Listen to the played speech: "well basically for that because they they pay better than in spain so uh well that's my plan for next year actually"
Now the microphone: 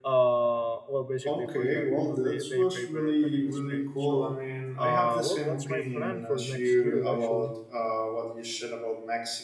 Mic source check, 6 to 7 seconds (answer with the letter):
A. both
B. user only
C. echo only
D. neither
A